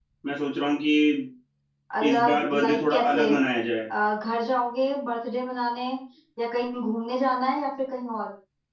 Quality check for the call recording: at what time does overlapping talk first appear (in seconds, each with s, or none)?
2.0 s